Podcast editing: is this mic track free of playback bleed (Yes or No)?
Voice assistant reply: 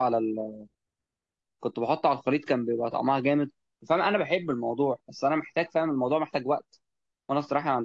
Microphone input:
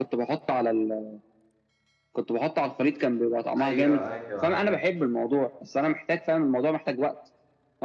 No